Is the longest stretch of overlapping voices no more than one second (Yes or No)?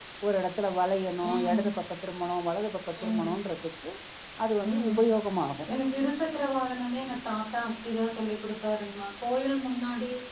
Yes